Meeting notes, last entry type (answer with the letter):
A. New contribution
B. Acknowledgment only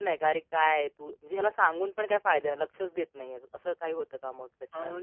A